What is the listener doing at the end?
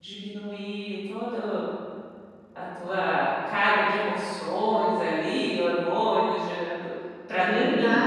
taking over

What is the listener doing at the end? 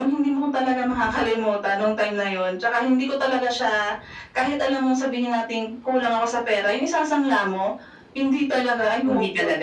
listening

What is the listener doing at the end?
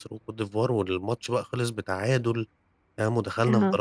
taking over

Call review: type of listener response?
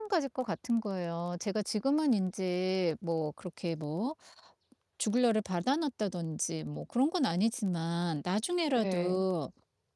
listening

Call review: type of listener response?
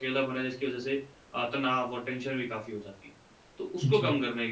listening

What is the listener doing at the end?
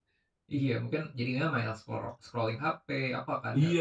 taking over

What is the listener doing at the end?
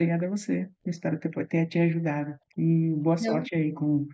listening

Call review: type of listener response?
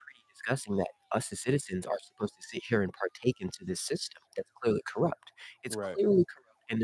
listening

